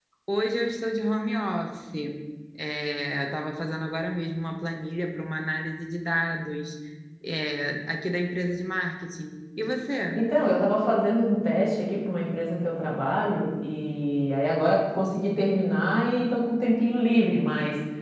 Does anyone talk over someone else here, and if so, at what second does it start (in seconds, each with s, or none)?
none